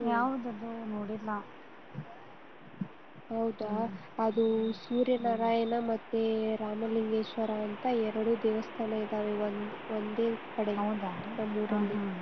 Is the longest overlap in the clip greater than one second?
No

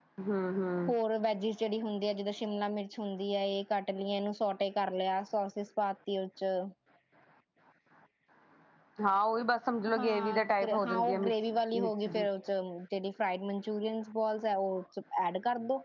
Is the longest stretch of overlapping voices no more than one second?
No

